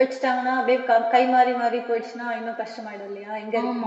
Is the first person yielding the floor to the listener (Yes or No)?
Yes